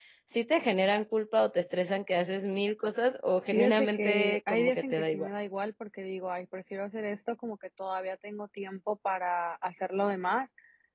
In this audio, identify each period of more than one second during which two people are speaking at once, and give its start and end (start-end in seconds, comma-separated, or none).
3.5-5.3